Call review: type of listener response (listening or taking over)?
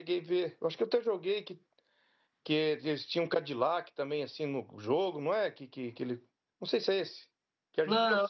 taking over